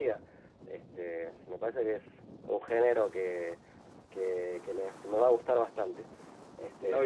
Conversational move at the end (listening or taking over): taking over